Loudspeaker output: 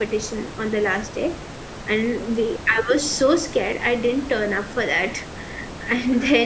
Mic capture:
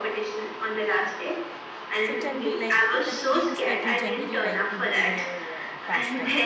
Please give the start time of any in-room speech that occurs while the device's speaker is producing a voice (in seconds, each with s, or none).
2.0 s